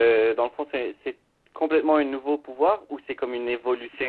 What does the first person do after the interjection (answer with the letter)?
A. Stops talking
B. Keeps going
A